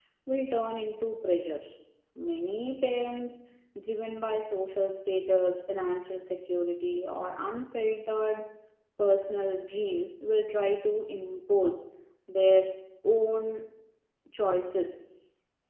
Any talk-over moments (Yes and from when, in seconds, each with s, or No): No